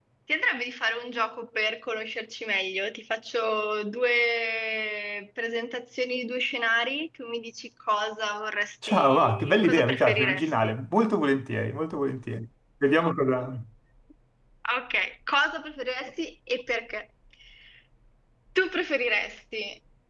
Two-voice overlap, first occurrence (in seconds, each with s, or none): 8.8 s